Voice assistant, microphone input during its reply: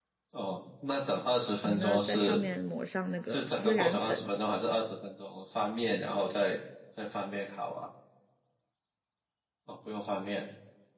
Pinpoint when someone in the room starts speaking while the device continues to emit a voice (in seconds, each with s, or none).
1.6 s